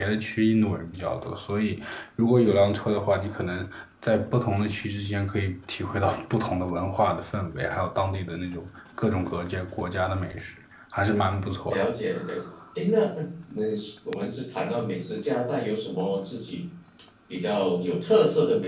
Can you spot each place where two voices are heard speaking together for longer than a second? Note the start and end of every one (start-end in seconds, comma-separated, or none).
none